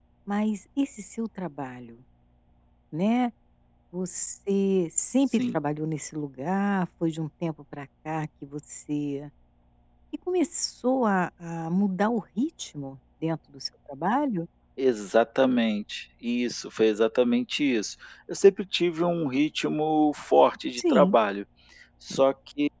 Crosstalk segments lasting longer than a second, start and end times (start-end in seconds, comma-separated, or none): none